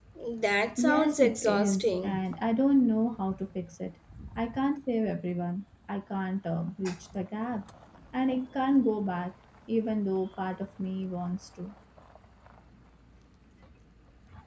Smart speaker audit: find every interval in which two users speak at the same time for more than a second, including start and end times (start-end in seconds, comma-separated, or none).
0.8-2.2